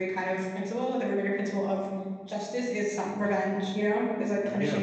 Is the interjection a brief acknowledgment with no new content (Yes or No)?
No